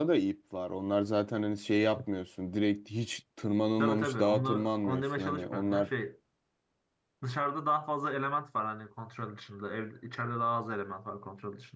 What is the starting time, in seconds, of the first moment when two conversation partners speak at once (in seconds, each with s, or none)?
3.8 s